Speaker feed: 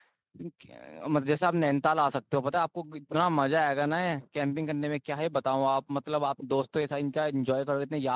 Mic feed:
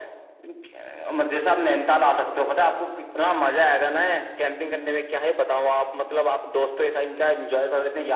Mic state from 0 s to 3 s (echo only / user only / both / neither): echo only